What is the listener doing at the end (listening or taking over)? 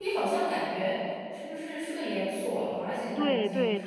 taking over